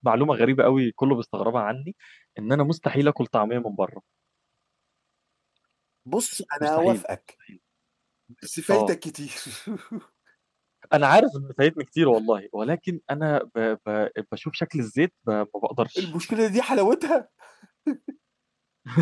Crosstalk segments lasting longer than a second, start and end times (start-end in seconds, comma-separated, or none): none